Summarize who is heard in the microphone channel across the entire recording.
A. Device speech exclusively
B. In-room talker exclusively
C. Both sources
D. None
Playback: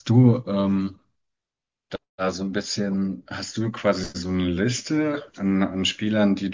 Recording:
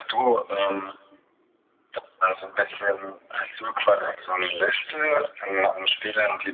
A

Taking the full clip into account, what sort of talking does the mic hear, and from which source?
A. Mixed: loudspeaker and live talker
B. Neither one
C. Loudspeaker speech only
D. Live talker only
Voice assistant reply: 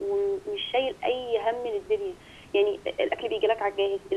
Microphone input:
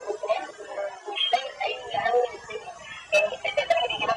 C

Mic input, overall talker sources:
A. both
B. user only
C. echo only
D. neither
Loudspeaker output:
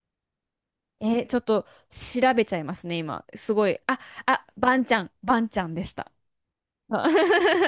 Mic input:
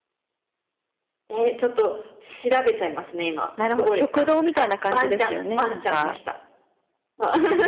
A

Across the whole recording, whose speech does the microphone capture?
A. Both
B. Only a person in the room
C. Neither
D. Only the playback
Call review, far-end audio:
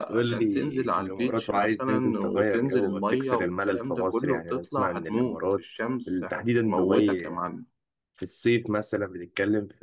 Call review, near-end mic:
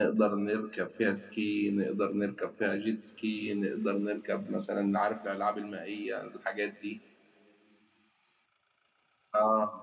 B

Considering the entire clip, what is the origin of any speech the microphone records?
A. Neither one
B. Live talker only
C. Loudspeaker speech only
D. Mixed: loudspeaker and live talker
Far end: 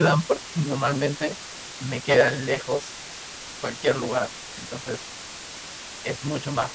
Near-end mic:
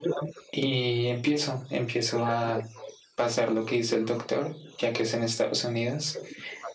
D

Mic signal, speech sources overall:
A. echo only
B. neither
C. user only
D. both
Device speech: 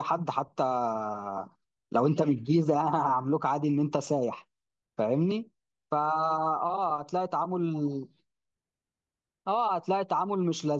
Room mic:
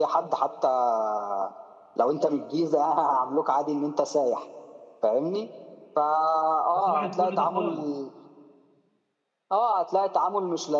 D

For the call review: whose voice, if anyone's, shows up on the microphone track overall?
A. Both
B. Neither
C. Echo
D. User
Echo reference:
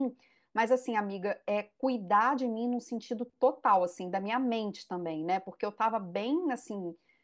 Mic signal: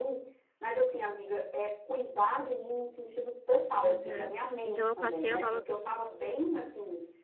A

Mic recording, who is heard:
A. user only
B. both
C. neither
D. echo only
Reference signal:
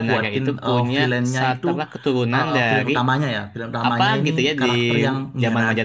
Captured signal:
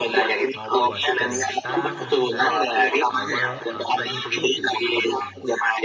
B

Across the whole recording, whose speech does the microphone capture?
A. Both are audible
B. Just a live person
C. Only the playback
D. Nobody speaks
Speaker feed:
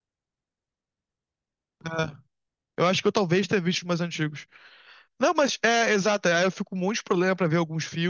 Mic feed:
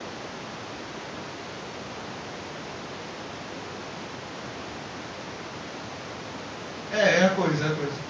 B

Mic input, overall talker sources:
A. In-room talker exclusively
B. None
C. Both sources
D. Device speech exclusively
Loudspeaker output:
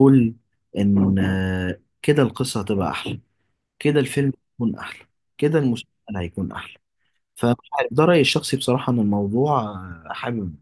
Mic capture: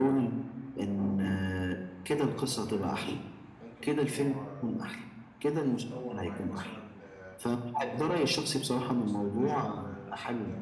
C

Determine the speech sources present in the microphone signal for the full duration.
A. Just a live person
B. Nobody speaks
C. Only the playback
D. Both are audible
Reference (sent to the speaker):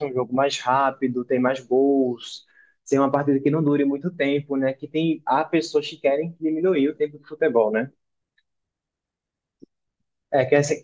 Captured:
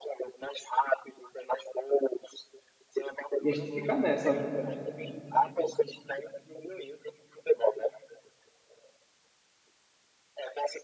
D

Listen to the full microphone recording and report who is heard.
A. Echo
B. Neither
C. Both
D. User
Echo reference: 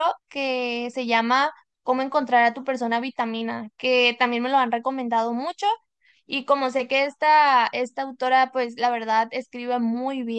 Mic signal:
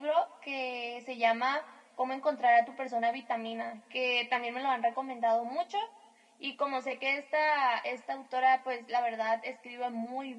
A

